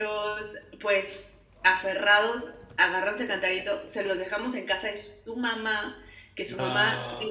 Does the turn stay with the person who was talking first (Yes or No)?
Yes